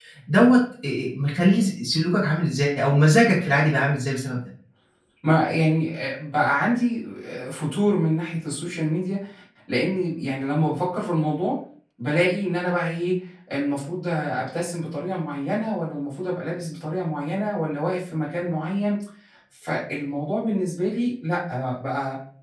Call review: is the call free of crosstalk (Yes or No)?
Yes